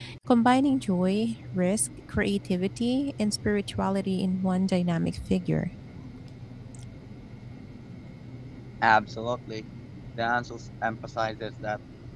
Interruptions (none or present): none